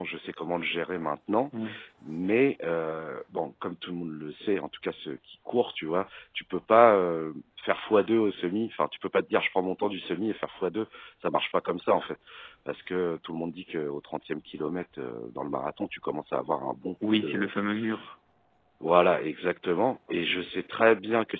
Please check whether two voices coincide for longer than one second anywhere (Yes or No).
No